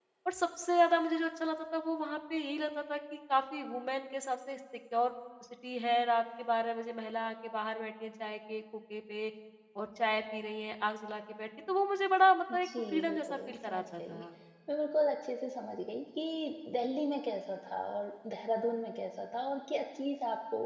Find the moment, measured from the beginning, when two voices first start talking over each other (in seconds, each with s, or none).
12.5 s